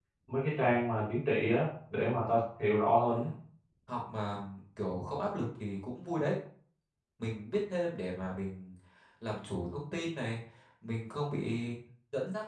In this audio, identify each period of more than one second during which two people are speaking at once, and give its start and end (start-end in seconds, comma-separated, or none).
none